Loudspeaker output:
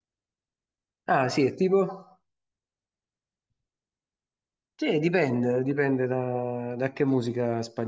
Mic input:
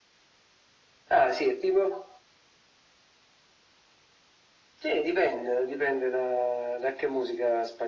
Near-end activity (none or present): none